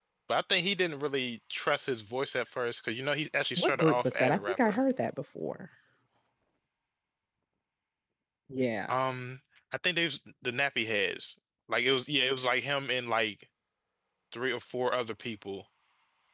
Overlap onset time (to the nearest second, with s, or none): 4 s